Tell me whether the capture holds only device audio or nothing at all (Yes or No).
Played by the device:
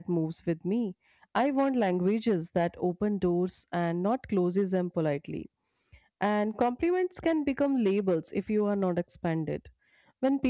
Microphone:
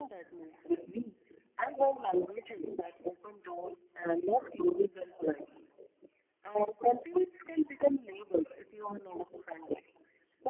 Yes